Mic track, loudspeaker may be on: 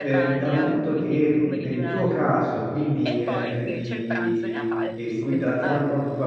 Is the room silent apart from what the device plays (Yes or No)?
No